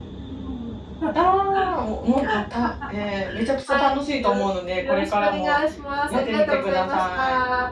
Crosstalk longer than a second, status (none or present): present